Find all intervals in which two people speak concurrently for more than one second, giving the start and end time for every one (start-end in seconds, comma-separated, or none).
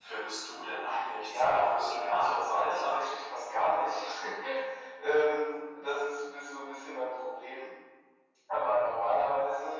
1.2-3.1